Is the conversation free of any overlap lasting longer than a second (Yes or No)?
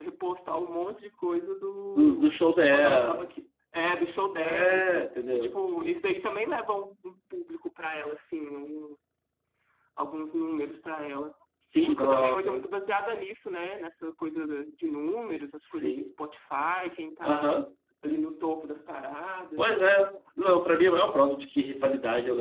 No